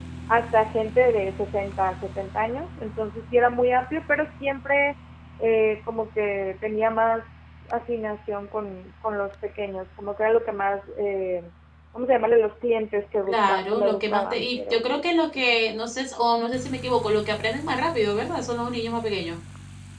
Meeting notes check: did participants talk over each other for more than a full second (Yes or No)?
Yes